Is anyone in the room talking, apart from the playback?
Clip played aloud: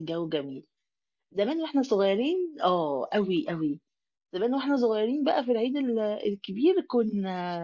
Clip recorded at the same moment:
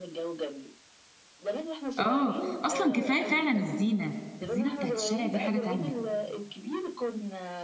Yes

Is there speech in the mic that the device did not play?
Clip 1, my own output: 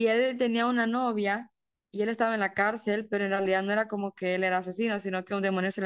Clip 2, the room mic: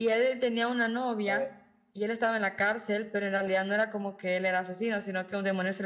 Yes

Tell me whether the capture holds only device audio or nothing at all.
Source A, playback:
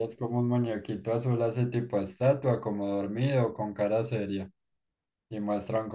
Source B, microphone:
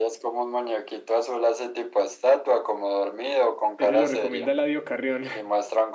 No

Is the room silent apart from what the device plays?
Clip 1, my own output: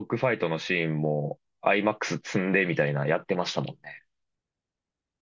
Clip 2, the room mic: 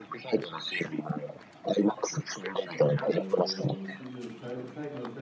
No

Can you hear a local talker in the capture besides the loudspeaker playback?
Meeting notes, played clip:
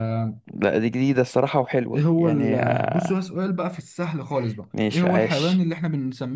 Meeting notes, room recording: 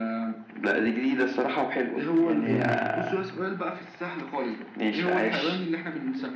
Yes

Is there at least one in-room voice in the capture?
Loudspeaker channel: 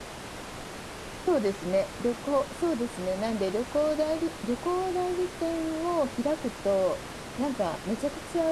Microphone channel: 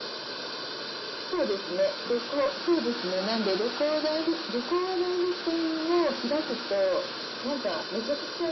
No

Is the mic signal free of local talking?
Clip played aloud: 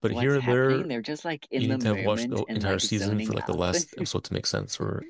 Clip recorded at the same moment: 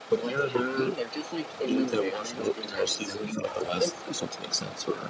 Yes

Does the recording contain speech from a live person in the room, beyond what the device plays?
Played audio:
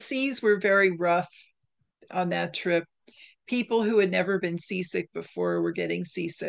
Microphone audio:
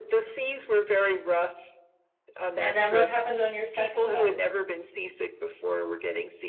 Yes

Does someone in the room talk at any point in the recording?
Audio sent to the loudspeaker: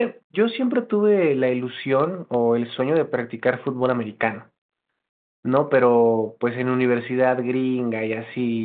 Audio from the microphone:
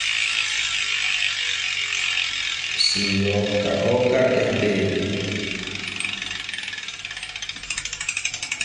Yes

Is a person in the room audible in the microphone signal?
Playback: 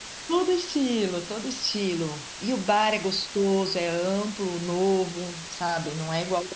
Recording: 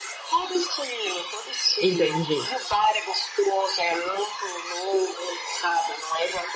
Yes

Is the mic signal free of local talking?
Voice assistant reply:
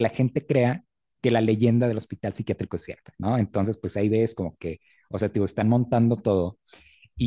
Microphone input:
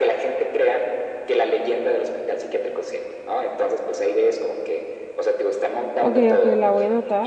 No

